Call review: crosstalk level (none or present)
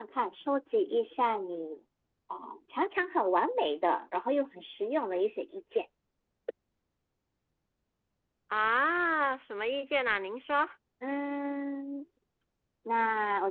none